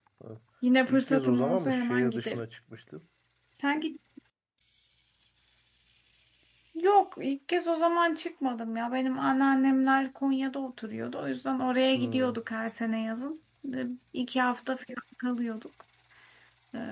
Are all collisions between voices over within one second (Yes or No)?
No